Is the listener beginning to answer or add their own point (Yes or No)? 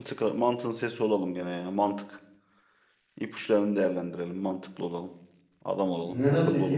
Yes